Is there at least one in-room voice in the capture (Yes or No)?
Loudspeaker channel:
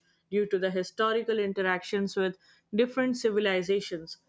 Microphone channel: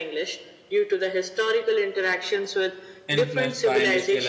Yes